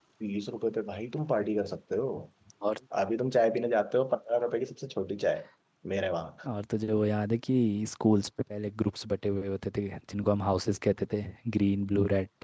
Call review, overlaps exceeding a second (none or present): none